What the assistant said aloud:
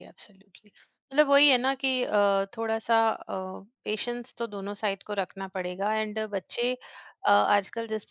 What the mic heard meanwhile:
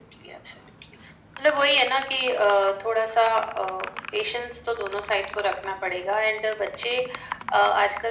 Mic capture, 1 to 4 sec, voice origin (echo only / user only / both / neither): echo only